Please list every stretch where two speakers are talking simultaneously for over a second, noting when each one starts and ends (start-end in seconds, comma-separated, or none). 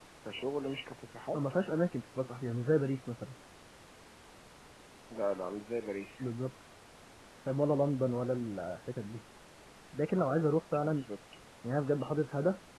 none